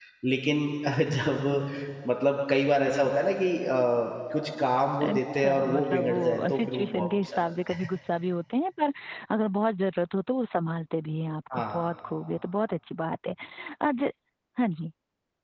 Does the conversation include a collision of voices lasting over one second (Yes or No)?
Yes